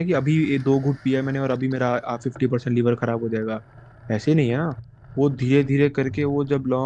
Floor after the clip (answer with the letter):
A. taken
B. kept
B